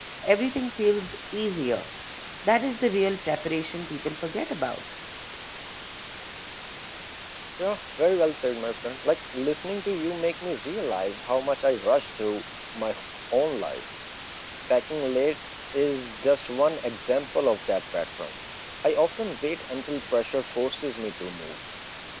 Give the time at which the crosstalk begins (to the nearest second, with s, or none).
none